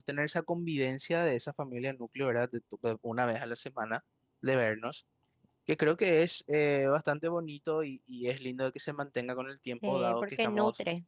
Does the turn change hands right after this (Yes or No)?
Yes